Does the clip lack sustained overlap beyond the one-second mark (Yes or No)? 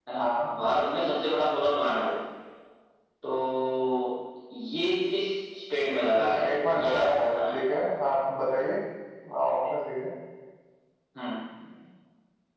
No